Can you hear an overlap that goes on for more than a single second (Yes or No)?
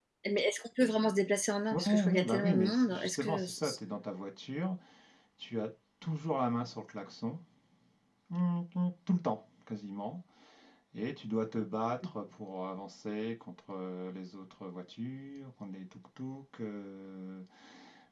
Yes